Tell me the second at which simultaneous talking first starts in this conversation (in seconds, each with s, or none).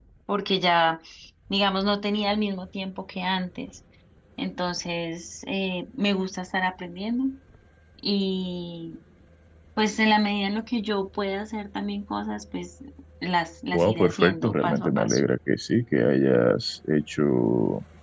13.7 s